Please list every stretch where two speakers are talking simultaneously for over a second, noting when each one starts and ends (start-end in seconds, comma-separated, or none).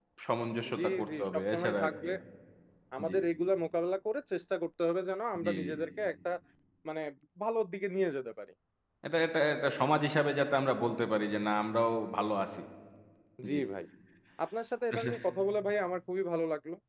0.8-2.1